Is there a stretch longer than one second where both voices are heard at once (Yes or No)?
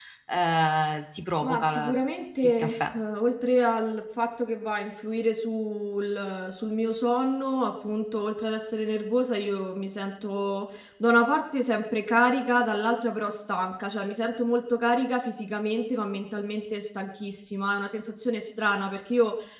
No